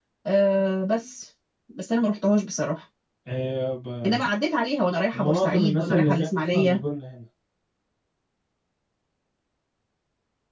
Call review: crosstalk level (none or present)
present